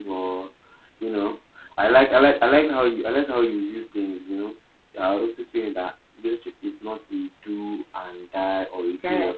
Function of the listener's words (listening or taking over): listening